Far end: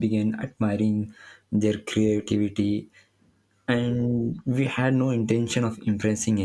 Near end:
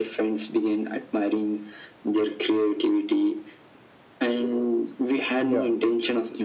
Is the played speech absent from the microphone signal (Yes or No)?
No